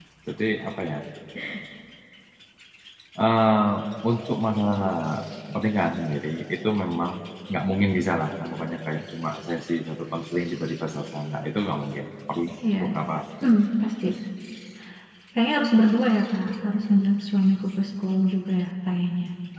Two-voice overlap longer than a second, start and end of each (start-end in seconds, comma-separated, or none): none